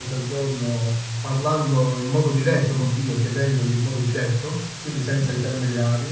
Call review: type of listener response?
listening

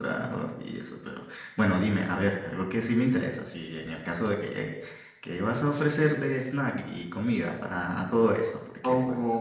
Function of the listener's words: taking over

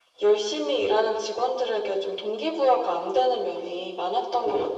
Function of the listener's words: taking over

